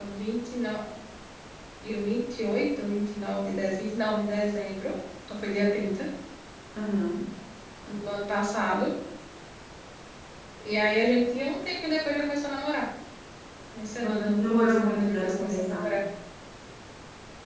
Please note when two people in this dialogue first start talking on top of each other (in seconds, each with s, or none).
14.0 s